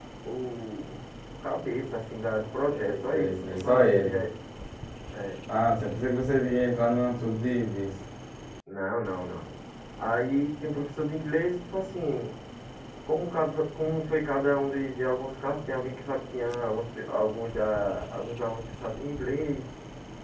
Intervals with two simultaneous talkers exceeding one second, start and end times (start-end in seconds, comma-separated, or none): 2.7-4.2